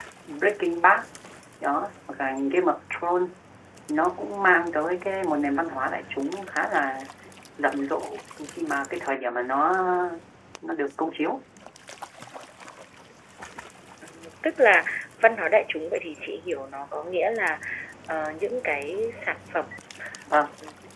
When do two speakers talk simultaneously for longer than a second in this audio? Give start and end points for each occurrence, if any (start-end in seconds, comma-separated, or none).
none